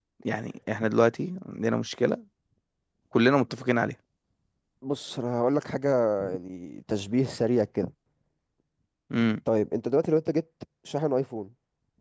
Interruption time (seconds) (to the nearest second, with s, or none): none